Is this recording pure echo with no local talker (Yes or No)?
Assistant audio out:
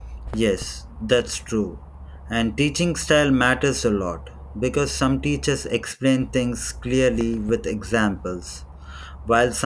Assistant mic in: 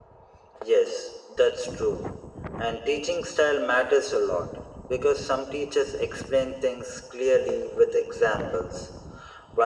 Yes